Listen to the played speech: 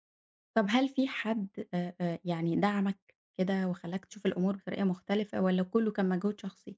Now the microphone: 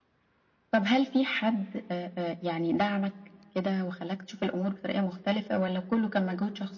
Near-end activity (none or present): none